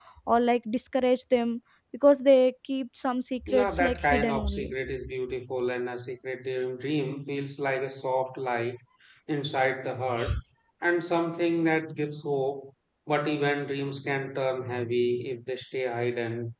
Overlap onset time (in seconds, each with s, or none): 3.5 s